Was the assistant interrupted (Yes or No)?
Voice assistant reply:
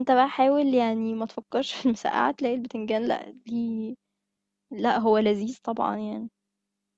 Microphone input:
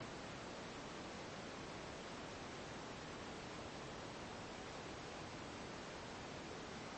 No